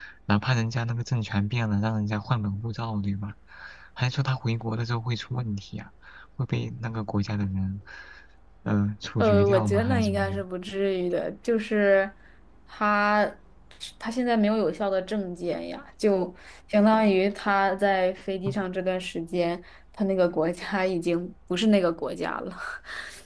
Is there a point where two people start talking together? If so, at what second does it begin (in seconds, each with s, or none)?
9.2 s